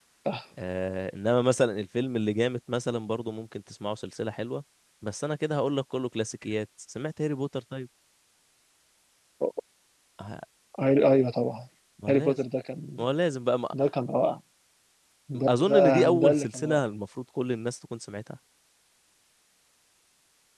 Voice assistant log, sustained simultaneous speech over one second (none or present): present